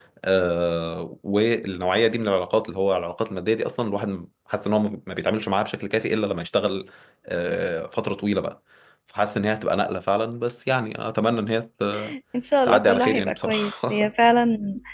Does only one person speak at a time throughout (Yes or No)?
No